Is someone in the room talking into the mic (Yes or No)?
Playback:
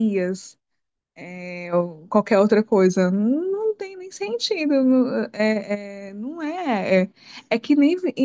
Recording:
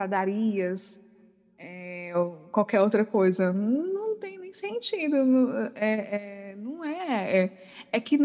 No